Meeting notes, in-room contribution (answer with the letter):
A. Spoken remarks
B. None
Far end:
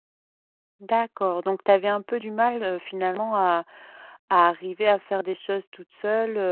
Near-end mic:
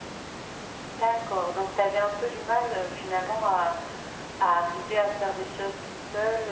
B